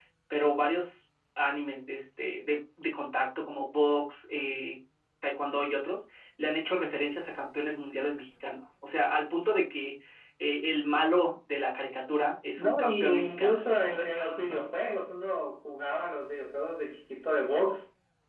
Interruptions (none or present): present